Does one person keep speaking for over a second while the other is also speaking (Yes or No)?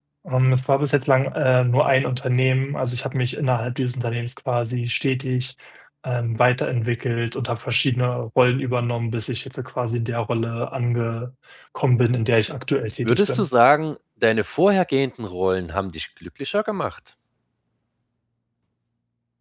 No